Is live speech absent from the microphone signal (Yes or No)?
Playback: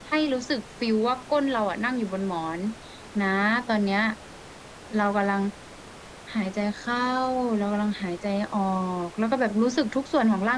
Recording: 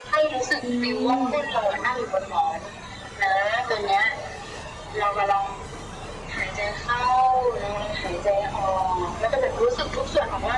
No